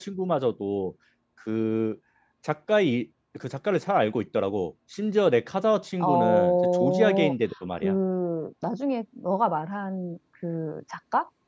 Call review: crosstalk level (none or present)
present